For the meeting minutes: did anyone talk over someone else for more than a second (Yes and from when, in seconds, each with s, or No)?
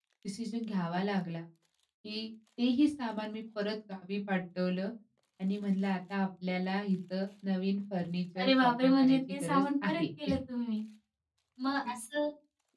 Yes, from 8.4 s